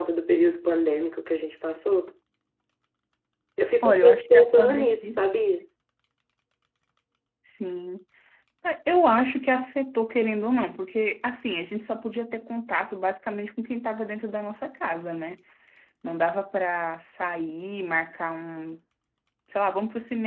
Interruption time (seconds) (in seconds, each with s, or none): 3.8 s